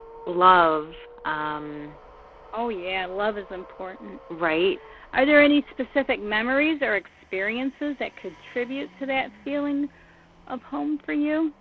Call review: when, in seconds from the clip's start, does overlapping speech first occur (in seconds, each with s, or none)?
none